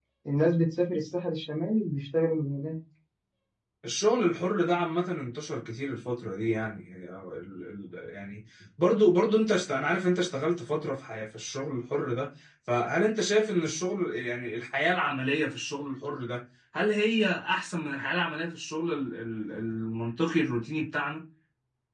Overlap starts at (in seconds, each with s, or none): none